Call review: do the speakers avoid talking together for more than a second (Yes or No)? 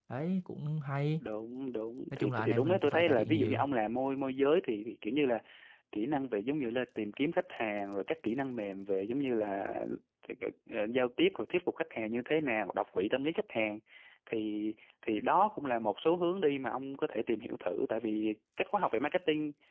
No